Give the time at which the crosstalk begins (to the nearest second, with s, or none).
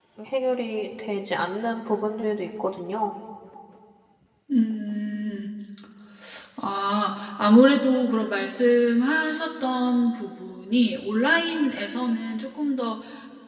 none